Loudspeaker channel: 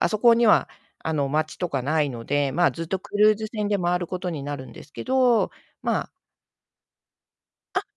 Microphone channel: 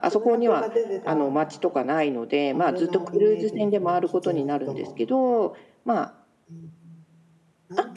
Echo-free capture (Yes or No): No